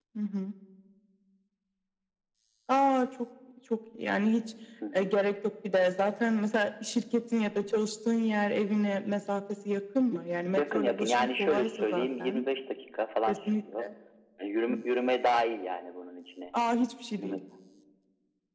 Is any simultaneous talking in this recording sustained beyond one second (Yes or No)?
Yes